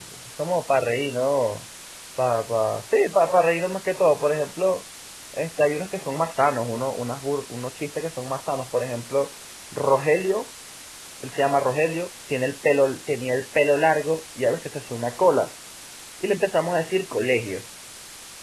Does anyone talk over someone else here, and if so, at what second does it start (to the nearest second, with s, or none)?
none